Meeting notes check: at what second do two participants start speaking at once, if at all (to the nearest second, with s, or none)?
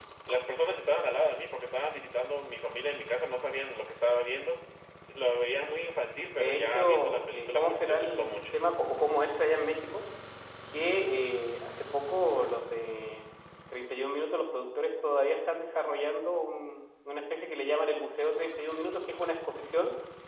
6 s